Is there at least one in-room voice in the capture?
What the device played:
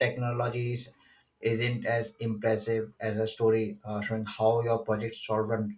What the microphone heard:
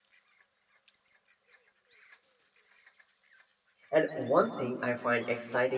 Yes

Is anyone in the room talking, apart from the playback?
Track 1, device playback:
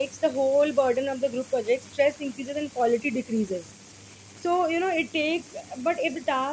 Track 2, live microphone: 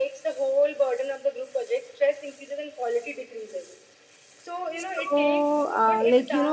Yes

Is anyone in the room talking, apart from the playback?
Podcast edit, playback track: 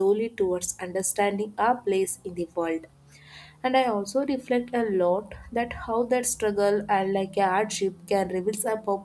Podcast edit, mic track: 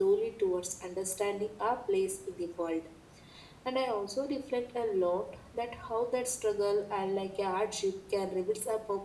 No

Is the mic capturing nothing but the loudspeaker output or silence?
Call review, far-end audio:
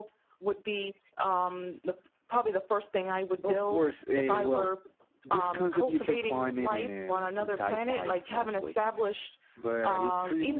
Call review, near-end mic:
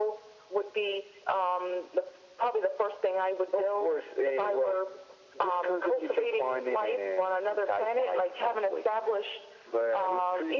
Yes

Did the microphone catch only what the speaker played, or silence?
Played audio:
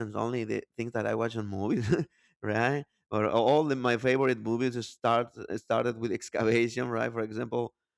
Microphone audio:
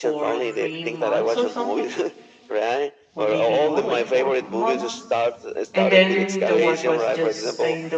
No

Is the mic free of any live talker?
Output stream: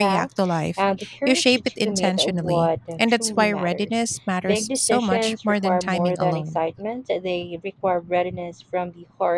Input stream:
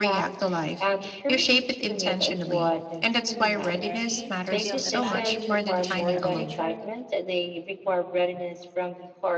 No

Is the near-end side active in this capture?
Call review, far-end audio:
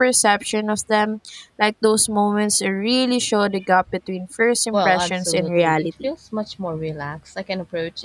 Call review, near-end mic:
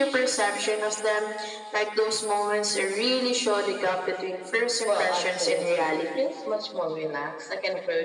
No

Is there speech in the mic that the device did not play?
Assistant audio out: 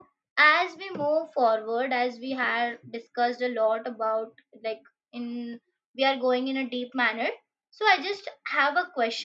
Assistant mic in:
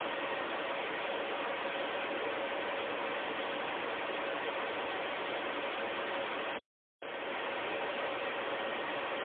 No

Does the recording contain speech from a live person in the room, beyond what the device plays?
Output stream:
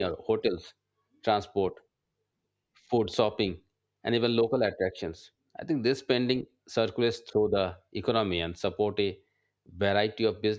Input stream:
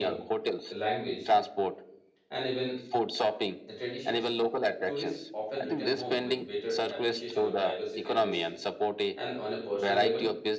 Yes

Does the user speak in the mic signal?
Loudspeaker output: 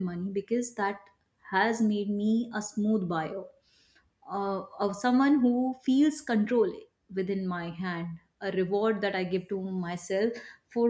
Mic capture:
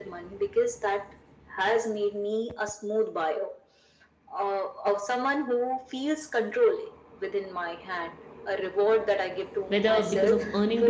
Yes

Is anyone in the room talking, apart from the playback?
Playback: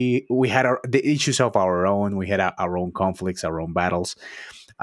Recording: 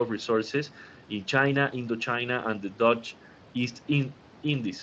Yes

